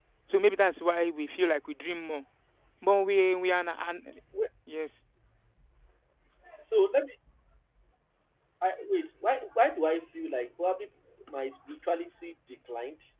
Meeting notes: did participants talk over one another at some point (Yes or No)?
No